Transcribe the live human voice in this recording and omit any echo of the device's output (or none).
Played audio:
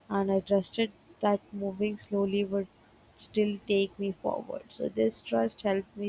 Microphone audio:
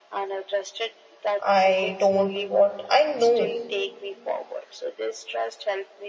I don't what I know